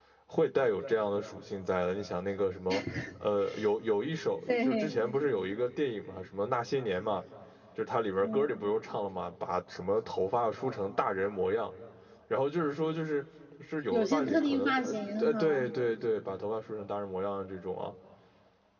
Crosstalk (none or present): present